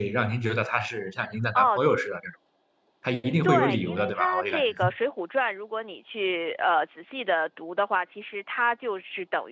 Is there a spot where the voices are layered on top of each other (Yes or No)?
Yes